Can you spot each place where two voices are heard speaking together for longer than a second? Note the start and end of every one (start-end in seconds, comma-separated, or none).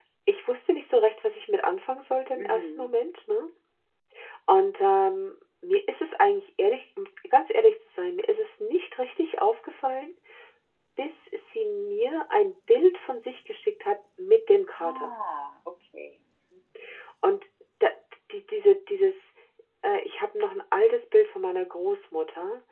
none